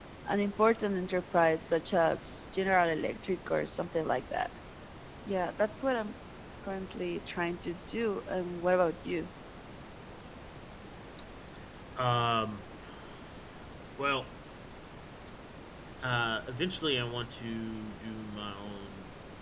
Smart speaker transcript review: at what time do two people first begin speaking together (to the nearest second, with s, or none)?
none